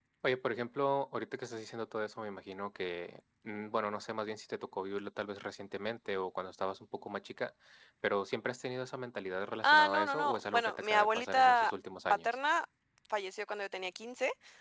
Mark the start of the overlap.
9.6 s

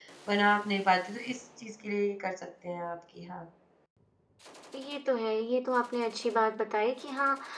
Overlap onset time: none

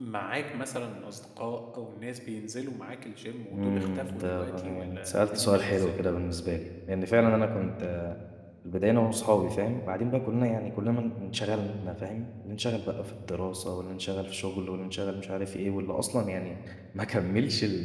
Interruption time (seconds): 3.5 s

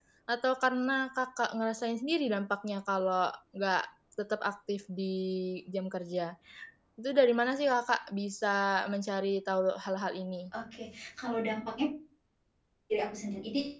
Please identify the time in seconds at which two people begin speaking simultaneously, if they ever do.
none

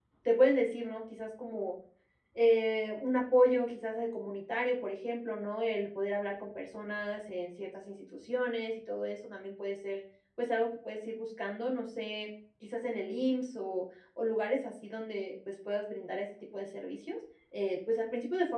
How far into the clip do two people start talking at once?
none

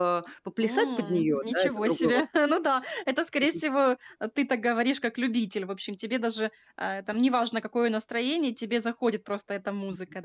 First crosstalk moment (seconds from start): 0.6 s

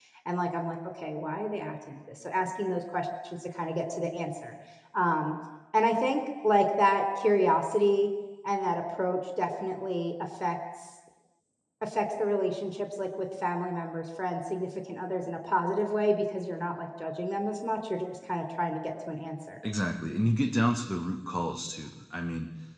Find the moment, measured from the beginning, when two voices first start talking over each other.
none

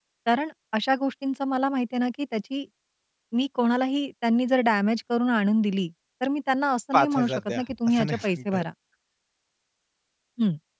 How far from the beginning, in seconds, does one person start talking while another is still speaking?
6.9 s

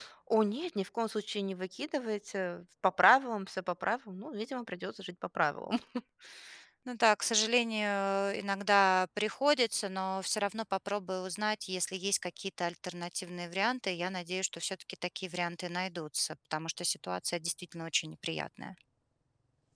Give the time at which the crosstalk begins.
none

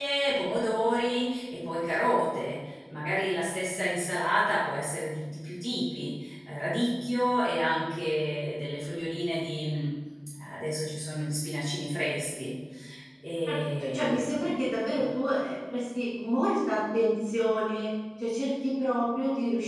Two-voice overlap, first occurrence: 13.4 s

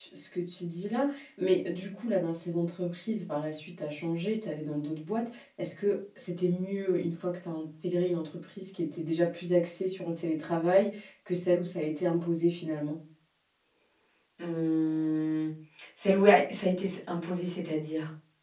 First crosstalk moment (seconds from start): none

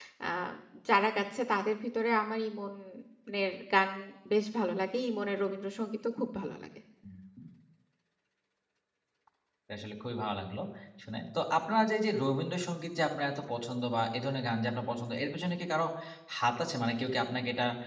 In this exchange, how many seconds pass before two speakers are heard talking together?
none

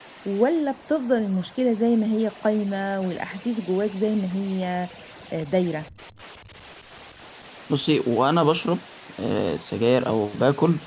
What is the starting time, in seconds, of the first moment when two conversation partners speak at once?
none

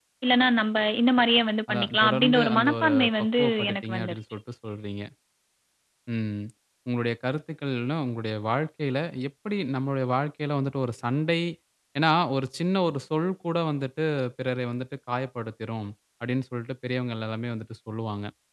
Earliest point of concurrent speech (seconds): 1.7 s

